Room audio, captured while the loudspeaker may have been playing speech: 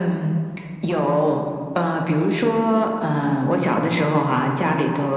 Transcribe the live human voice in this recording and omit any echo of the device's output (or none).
none